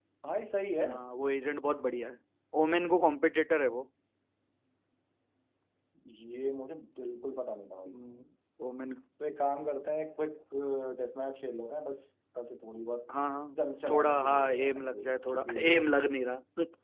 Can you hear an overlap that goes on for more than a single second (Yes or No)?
Yes